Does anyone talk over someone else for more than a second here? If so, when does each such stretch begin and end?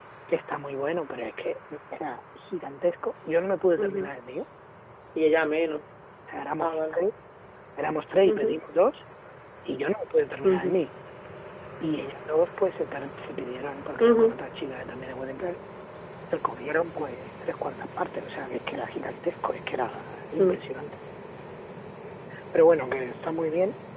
none

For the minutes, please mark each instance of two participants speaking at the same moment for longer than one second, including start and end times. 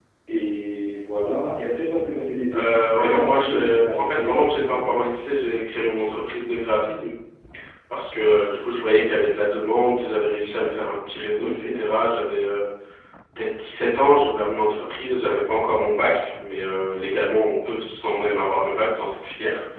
2.5-5.0

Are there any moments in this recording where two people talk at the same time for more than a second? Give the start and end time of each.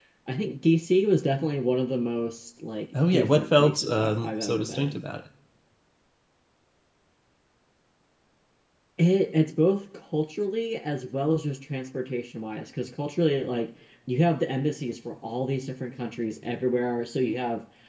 3.1-5.0

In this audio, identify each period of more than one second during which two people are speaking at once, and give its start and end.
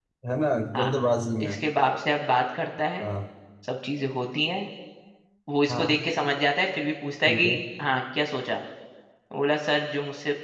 none

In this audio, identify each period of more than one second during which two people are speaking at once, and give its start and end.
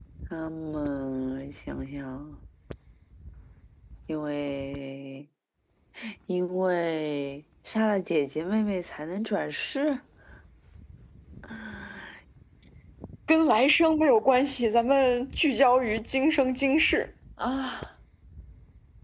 none

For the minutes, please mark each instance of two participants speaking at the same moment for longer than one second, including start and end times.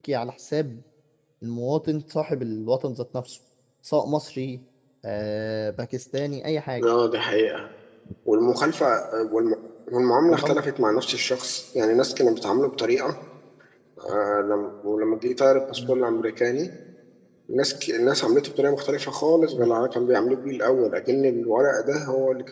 none

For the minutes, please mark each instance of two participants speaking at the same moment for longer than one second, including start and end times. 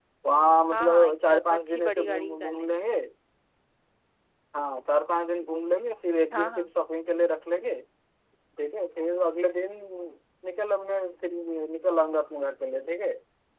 0.7-2.7

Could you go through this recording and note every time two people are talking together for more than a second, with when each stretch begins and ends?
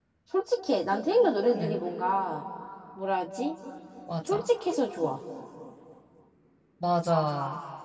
none

